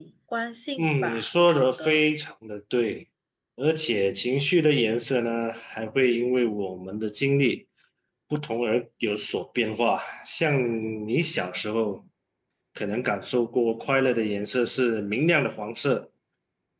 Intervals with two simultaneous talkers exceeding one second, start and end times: 0.8-2.0

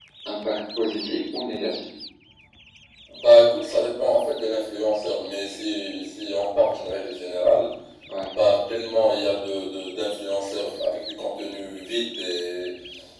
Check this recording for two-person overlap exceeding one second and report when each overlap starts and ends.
none

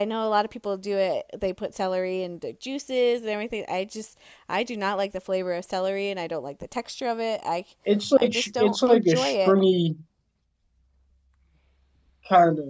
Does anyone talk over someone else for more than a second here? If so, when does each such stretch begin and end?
8.2-9.6

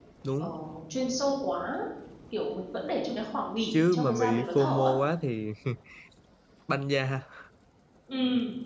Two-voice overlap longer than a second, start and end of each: 3.7-4.9

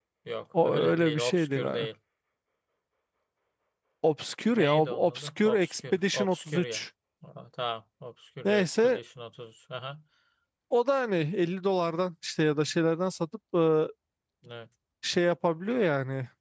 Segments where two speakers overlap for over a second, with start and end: 0.6-1.9, 4.5-6.8

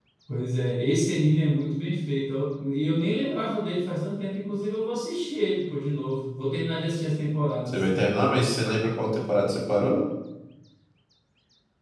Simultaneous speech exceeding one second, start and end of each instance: none

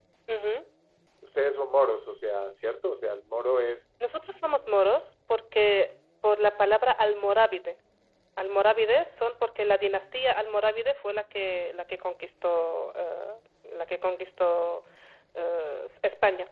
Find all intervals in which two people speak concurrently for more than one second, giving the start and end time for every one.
none

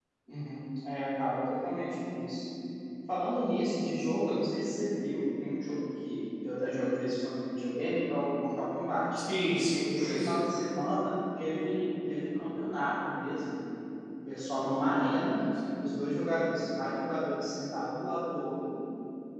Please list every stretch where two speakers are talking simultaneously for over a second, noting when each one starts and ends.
none

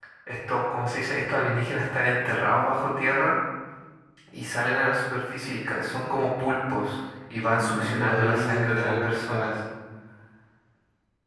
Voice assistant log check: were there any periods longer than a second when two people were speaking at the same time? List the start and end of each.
7.7-9.6

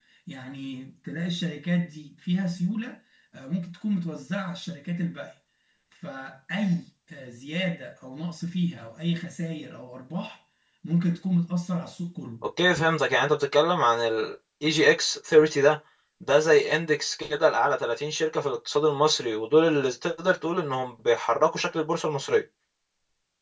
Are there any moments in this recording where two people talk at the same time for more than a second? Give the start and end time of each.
none

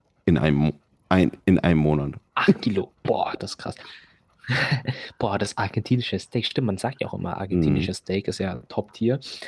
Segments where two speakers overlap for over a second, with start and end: none

